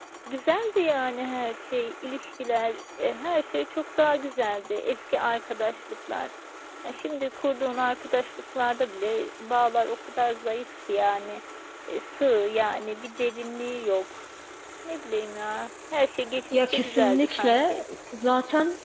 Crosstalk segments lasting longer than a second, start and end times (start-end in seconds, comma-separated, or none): 16.5-17.8